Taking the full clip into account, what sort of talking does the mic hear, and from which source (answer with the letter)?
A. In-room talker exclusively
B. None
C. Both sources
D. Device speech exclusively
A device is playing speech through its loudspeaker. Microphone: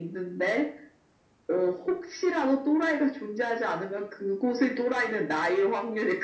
D